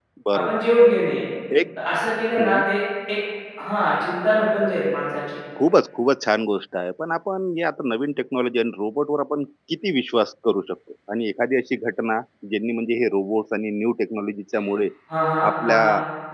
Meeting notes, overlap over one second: none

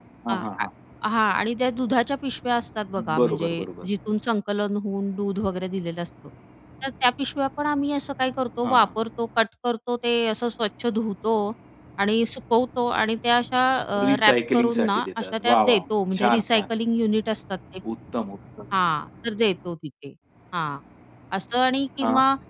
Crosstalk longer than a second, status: present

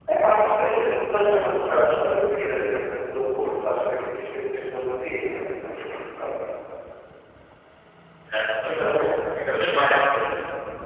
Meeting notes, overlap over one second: present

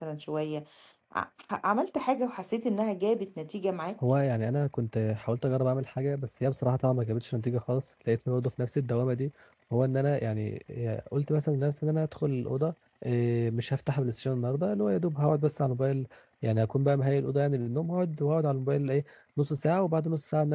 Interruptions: none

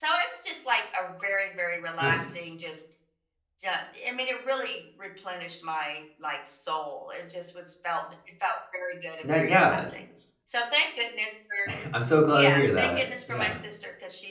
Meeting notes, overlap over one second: present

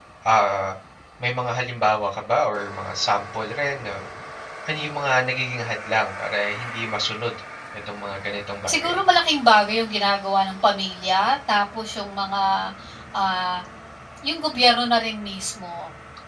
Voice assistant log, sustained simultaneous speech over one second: none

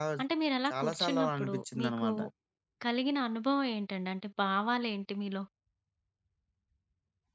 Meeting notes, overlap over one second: present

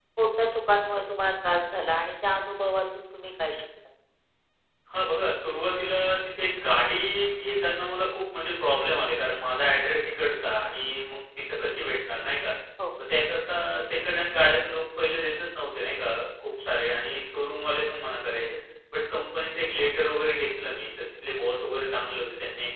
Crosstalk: none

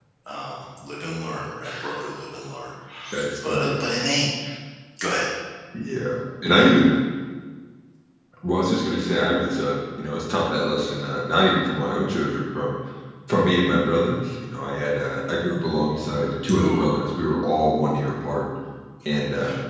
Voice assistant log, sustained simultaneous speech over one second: none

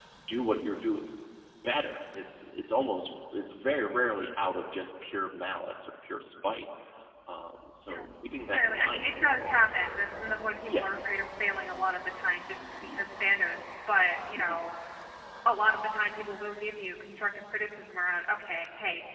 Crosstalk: present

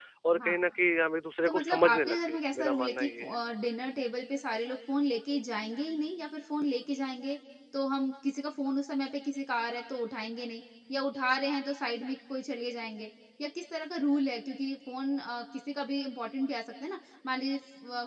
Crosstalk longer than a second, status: present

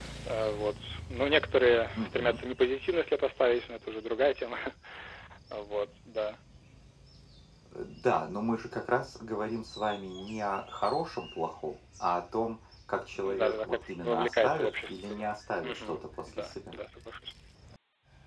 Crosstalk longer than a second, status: present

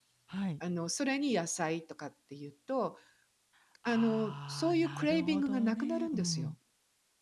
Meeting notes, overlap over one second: present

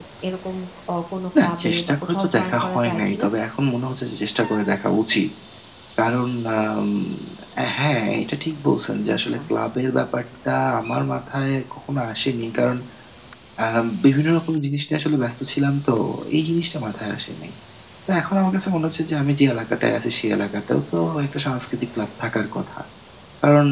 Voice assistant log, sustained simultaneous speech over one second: present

